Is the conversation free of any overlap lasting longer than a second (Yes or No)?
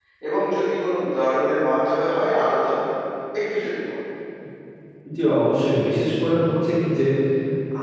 Yes